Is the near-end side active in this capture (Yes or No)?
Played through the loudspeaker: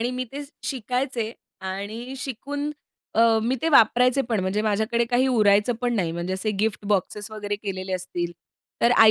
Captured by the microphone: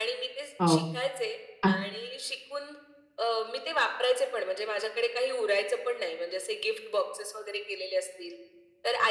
Yes